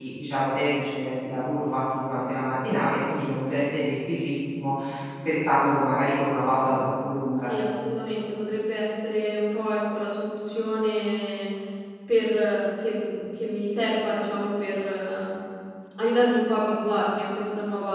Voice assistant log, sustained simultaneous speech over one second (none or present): none